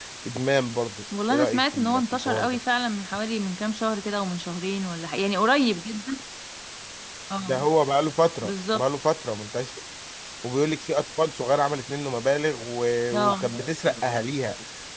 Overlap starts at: 1.3 s

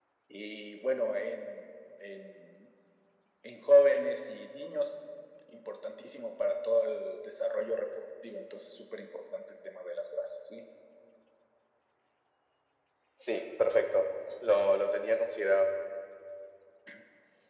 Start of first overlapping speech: none

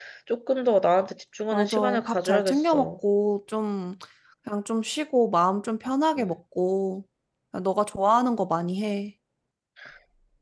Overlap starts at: 1.5 s

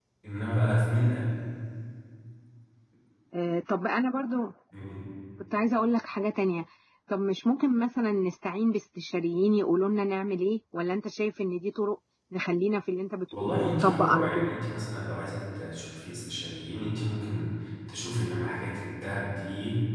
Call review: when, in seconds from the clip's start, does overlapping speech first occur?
13.3 s

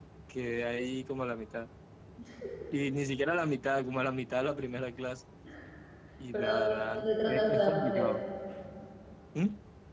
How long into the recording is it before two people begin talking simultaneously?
6.3 s

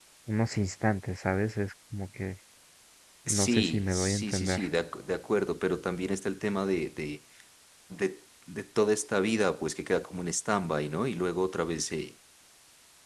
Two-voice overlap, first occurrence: 3.3 s

